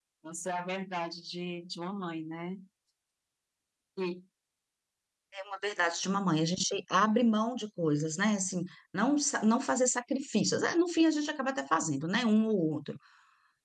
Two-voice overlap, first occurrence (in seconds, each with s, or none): none